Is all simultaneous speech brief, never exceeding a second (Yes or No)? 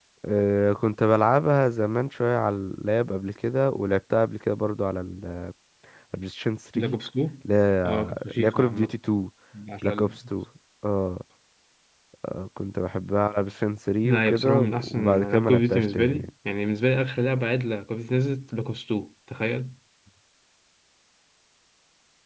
No